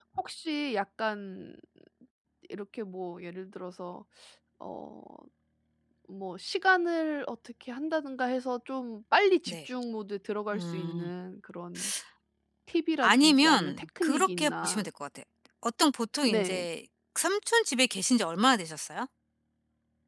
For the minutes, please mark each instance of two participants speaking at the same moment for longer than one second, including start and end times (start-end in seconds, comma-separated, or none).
13.0-14.9